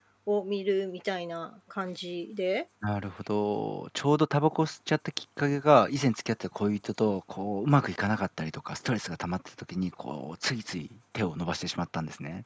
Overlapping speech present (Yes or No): No